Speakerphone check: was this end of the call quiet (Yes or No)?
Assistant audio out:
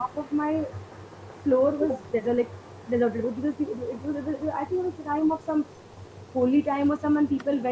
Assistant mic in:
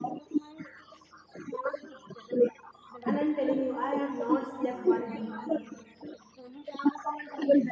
No